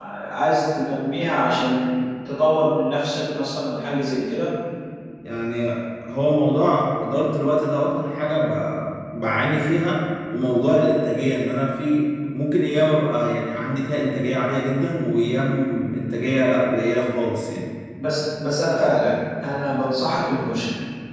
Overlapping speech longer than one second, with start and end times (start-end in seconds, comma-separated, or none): none